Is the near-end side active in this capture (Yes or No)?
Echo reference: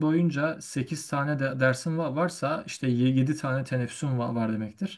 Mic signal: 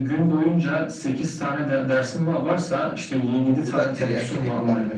Yes